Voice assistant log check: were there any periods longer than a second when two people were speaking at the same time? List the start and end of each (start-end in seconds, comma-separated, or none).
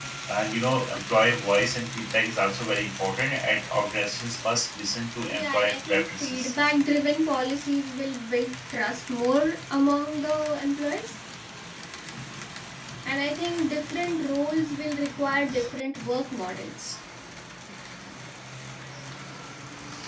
5.3-6.5